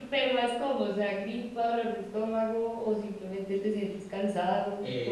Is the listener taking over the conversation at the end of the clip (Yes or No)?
Yes